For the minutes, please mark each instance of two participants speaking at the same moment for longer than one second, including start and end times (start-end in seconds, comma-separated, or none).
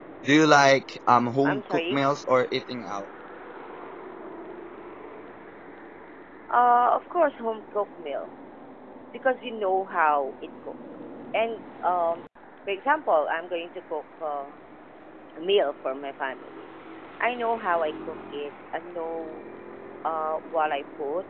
none